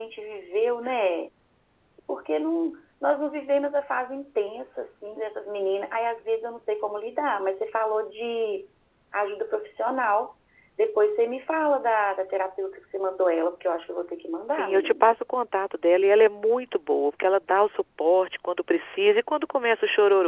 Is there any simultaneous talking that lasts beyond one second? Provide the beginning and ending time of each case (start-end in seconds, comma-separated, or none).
none